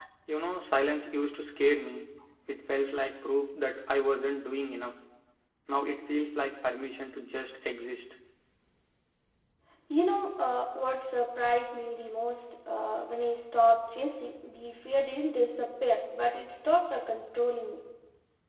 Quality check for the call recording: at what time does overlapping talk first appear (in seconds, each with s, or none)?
none